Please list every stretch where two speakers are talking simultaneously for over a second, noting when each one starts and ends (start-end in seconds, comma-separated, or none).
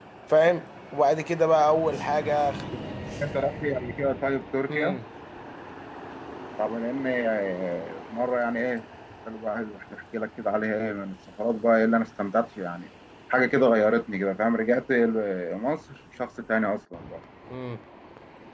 none